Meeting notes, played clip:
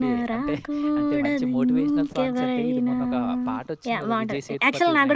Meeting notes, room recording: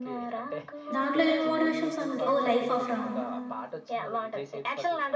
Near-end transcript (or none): దాంట్లో ఏం మోటివేషనల్ సాంగ్ ఉంది. ఓహ్! 'లైఫ్ ఆఫ్ రామ్' ఆ?